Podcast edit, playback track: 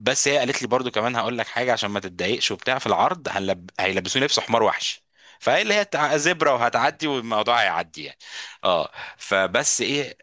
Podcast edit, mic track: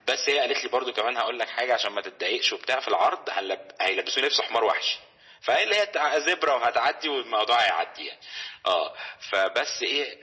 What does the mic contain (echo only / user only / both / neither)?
echo only